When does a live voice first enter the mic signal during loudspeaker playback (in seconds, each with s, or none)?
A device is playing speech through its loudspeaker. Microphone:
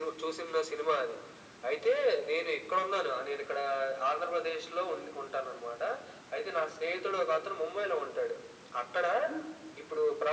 none